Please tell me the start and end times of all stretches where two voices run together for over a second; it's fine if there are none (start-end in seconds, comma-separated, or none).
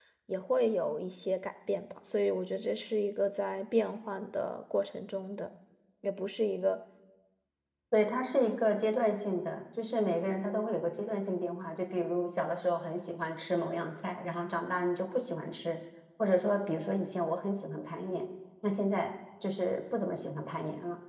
none